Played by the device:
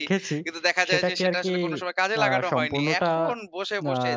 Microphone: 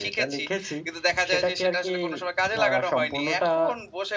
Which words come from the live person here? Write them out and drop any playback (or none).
none